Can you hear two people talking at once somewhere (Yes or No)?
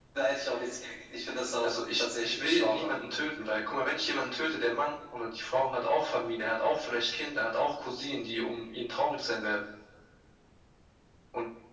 Yes